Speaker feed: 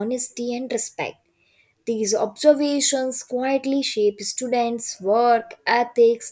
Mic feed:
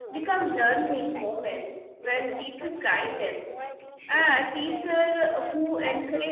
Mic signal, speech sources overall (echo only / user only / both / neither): both